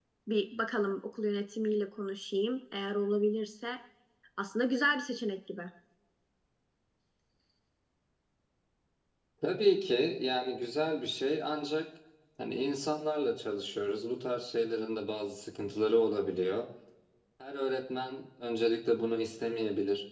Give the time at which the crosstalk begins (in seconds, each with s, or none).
none